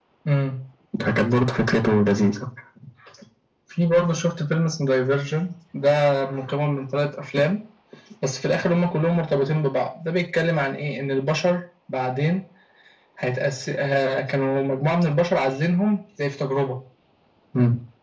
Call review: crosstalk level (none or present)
none